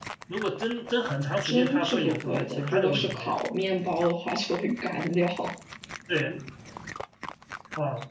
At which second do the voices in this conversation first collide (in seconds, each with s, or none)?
1.4 s